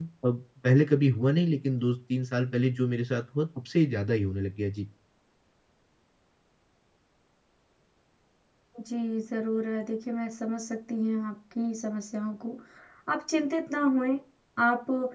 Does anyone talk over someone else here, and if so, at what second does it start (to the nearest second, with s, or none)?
none